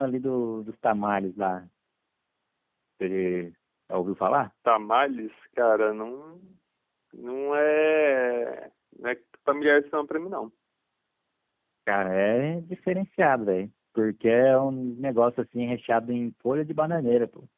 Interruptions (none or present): none